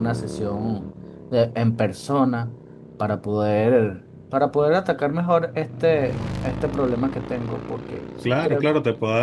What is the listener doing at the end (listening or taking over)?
taking over